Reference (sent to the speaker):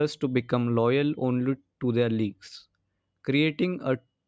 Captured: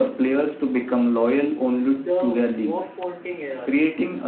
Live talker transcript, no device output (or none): the walk pointing eras.